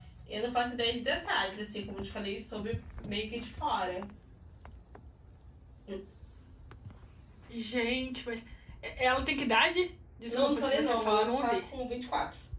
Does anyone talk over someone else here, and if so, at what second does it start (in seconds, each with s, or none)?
10.3 s